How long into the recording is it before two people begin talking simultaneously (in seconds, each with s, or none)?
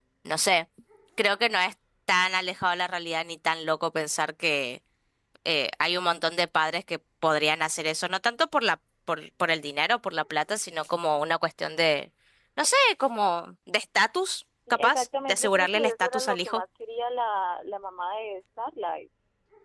14.7 s